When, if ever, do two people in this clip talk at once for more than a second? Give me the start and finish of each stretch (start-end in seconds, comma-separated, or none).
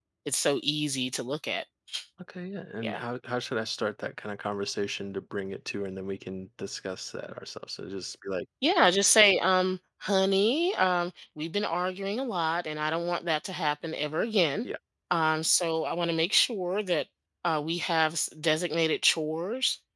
none